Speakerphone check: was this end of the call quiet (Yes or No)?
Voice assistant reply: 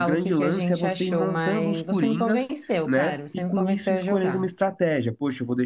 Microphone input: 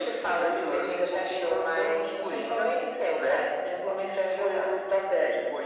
Yes